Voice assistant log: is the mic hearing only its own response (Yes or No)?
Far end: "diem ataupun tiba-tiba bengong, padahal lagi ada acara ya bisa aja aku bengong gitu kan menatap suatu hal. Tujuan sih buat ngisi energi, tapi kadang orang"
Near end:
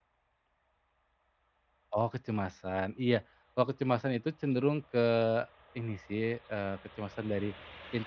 No